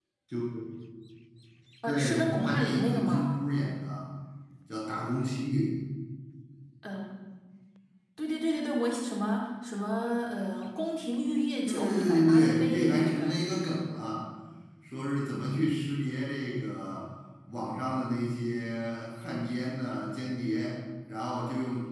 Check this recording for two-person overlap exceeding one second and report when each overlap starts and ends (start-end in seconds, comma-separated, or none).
1.9-3.3, 11.7-13.4